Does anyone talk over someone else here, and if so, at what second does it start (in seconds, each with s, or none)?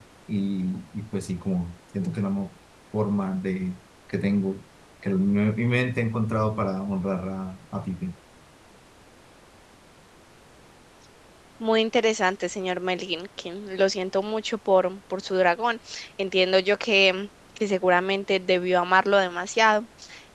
none